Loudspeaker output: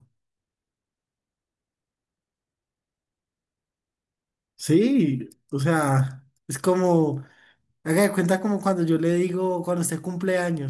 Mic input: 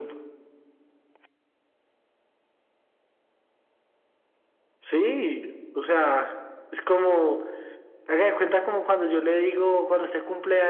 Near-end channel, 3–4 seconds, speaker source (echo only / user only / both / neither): neither